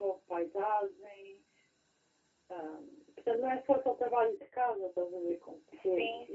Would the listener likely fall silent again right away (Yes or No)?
No